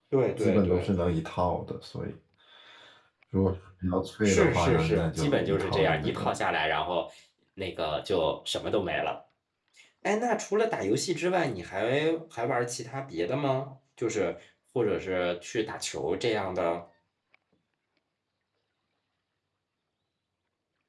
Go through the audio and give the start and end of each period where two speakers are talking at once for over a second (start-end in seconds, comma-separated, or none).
4.2-6.3